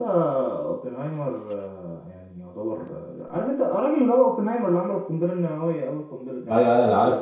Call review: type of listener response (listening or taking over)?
taking over